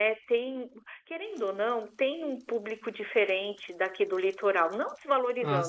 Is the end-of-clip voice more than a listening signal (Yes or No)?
No